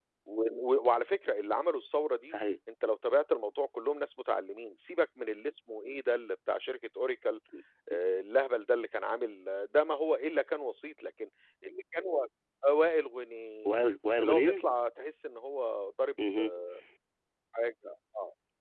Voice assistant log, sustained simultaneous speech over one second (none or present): none